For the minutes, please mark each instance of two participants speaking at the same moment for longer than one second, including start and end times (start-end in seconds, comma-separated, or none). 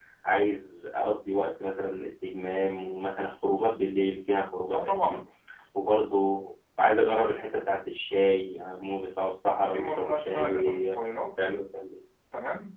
9.7-11.0